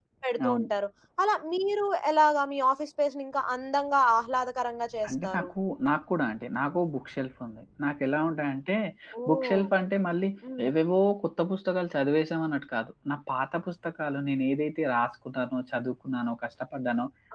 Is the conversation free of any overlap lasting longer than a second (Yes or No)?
Yes